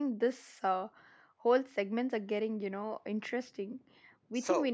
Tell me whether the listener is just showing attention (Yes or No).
Yes